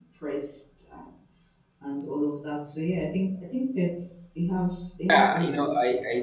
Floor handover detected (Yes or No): Yes